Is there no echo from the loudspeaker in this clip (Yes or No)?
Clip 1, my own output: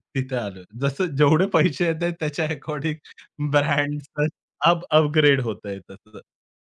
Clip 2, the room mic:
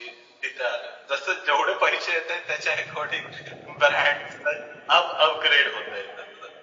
No